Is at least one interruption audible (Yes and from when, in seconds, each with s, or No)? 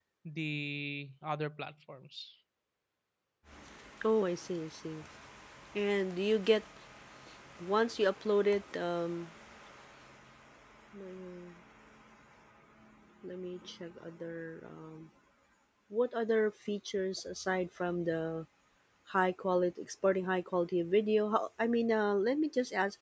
No